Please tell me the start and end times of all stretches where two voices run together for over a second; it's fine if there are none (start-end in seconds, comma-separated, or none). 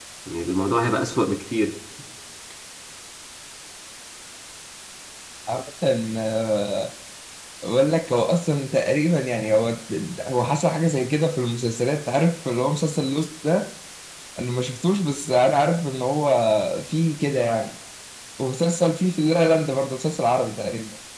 none